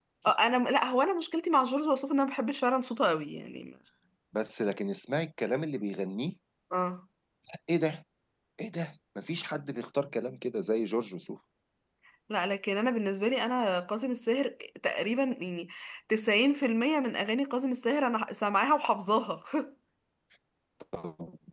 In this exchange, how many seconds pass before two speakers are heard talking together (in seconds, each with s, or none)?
none